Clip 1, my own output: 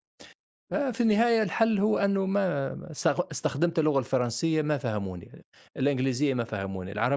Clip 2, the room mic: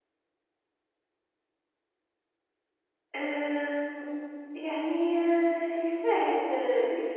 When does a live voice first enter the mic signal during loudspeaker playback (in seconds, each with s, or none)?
3.1 s